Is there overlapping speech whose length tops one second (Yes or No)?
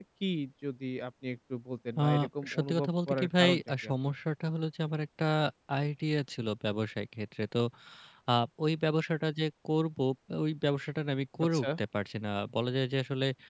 Yes